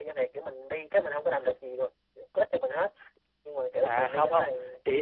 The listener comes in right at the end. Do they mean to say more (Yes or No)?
Yes